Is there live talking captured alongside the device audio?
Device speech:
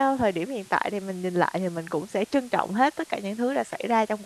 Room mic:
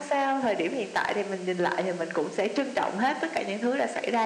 No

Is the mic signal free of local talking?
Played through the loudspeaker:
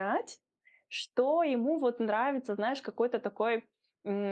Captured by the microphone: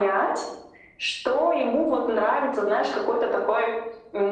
Yes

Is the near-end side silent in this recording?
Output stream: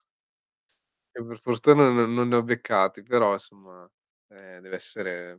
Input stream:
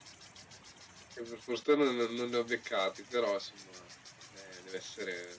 Yes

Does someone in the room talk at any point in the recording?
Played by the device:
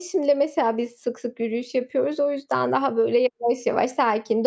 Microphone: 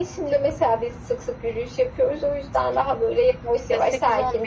Yes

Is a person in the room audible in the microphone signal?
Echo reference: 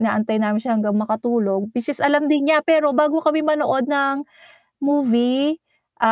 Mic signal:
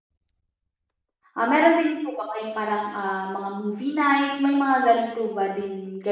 Yes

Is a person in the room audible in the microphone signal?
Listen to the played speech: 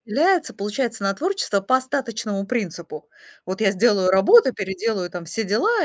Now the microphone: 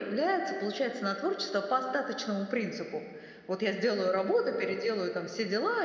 No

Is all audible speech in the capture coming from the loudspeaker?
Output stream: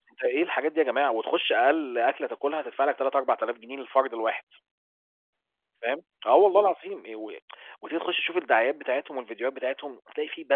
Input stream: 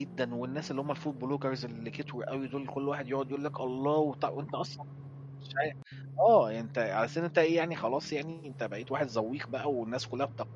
No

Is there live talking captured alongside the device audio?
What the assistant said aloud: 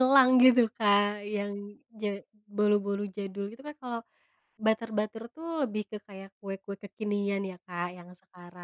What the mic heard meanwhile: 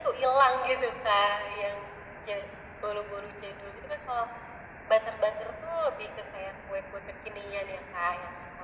No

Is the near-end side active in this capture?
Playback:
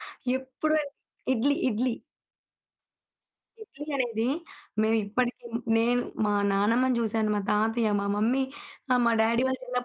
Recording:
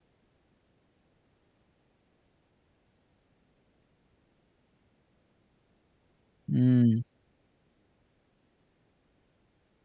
Yes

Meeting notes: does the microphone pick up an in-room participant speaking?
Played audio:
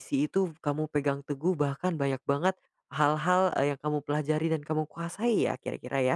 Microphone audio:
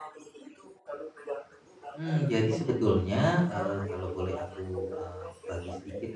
Yes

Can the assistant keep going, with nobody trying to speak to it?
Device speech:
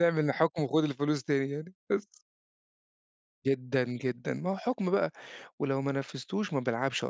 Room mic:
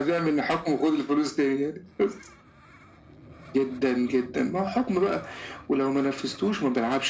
Yes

